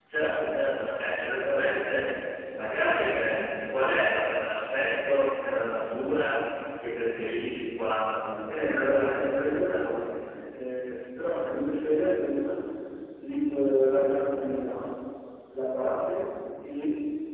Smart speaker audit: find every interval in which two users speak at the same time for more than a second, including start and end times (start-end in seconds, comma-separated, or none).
8.5-9.8